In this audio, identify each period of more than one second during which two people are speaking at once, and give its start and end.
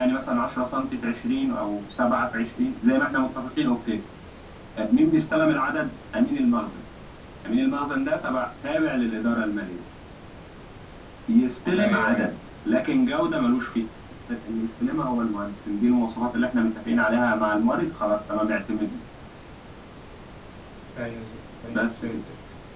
none

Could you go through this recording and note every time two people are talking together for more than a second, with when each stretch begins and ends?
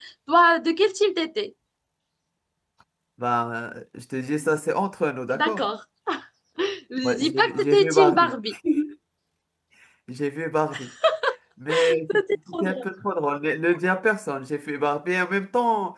7.0-8.4

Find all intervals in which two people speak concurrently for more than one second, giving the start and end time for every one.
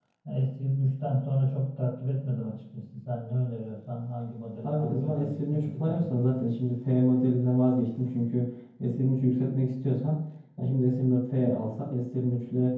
4.6-6.3

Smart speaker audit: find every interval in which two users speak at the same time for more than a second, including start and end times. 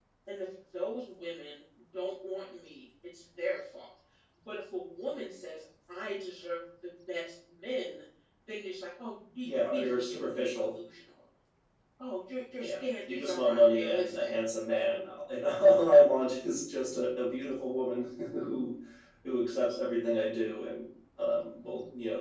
9.4-10.7, 12.6-14.3

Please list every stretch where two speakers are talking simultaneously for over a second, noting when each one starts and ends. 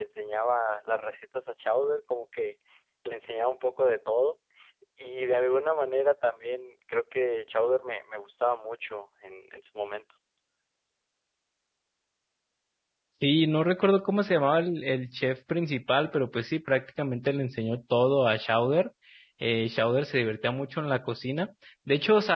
none

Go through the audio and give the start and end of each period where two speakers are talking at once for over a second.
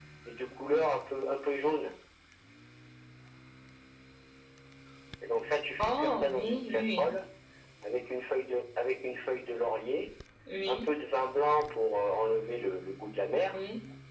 5.8-7.2

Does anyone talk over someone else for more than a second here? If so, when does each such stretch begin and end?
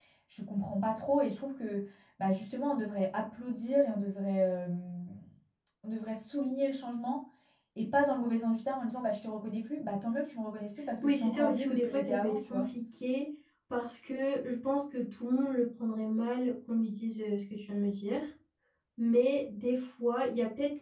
11.0-12.7

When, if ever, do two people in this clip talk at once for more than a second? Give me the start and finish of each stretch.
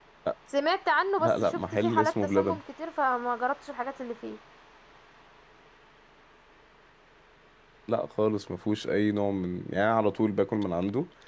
1.2-2.6

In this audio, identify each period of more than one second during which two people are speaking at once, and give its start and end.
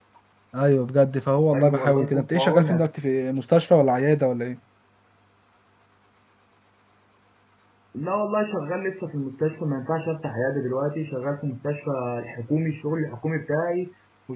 1.5-2.9

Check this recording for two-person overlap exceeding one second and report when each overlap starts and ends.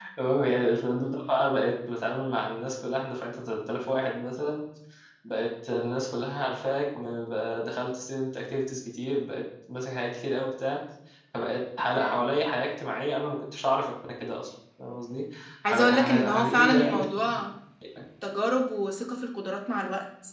15.6-17.0

